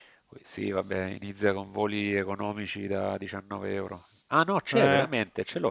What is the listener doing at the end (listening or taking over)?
listening